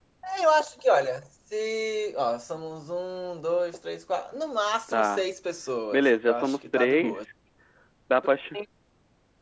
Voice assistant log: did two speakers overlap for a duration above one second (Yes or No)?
Yes